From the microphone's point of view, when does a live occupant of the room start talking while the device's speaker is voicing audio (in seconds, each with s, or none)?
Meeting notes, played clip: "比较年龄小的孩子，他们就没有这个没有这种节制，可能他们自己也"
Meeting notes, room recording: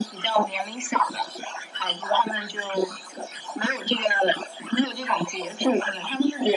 none